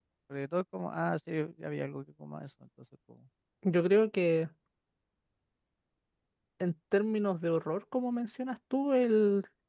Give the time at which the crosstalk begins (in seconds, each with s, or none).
none